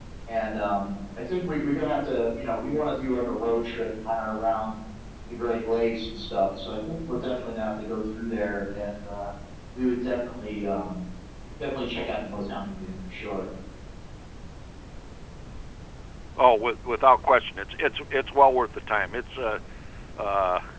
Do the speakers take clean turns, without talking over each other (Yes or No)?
Yes